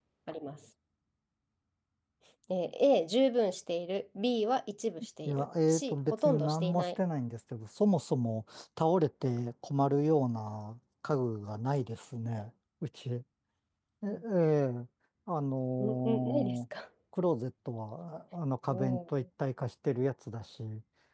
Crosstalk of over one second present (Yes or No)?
Yes